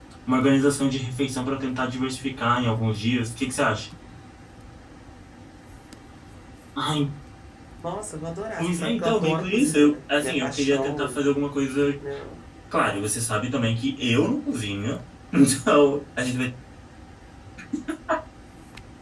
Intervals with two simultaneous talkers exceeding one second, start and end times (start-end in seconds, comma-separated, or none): 8.6-11.2